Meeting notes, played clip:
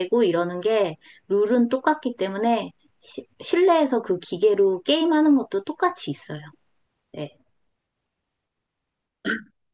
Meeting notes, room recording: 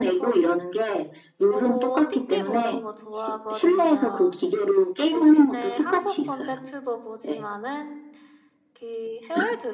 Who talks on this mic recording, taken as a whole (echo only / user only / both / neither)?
both